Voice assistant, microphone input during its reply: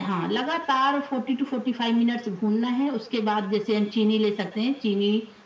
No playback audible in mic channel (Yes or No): No